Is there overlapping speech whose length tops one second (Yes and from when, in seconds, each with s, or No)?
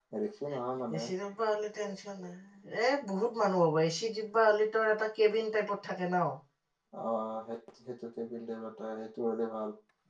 No